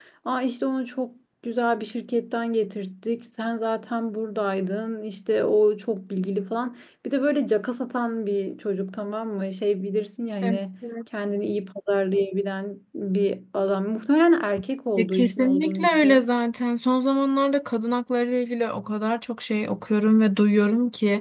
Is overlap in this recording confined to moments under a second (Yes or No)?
No